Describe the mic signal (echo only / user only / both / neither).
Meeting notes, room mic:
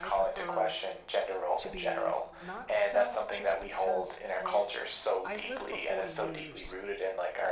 both